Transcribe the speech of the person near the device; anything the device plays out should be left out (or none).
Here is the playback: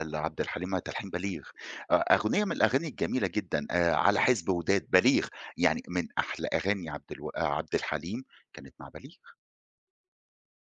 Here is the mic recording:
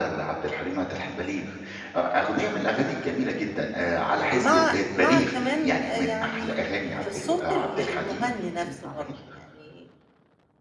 مع مع كمان آآ، يعني آه، صوت ال المغني نفسه برضه، يعني